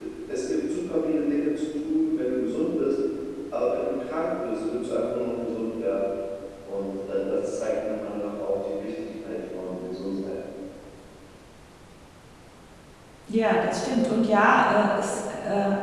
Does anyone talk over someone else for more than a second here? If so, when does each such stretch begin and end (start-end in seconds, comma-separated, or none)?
none